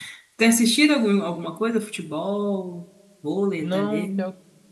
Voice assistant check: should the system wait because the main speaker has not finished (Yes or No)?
No